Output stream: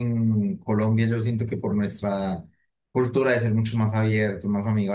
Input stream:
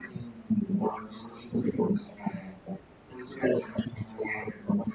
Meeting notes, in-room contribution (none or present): none